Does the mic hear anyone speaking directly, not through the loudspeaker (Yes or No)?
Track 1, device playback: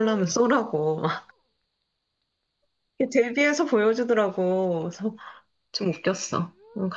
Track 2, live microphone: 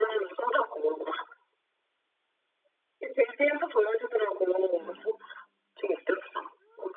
Yes